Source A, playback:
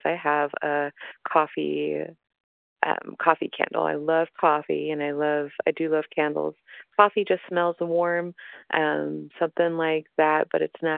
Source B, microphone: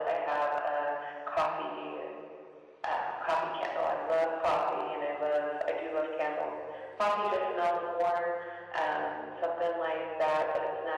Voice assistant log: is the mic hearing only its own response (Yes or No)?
Yes